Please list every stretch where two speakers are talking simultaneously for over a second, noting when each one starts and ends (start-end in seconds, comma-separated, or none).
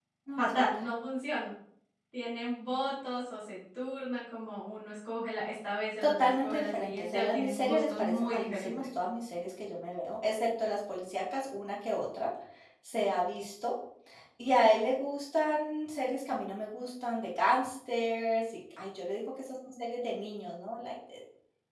6.0-8.7